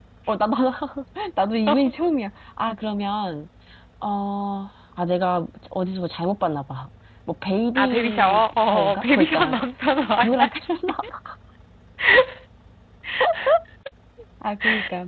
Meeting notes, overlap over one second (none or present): present